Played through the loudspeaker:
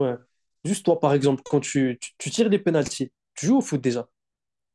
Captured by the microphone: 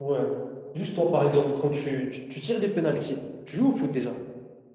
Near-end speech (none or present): none